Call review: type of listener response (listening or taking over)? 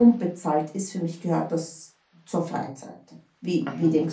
taking over